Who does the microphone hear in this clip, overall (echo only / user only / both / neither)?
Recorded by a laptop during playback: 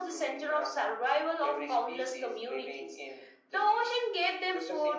echo only